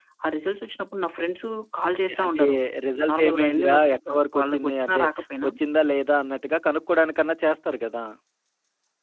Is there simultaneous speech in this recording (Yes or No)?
Yes